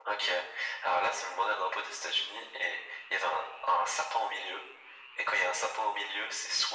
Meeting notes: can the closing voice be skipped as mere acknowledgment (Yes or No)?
Yes